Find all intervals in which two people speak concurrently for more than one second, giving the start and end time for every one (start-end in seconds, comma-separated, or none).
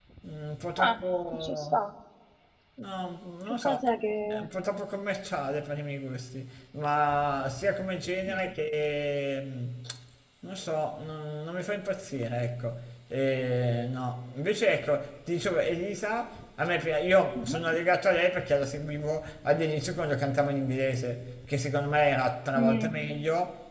none